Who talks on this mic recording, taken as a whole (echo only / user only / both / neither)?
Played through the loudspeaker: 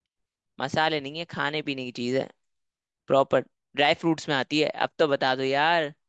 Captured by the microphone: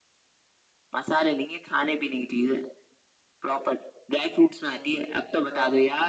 both